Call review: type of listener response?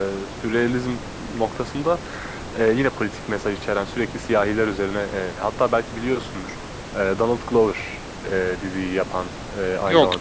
listening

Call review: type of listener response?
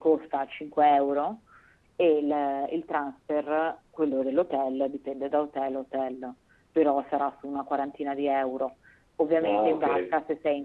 listening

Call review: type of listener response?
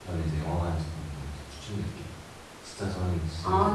taking over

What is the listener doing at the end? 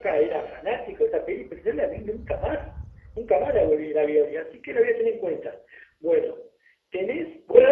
taking over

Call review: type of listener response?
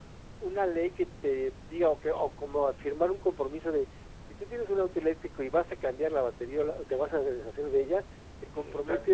listening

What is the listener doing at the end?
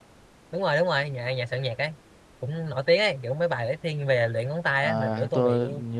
taking over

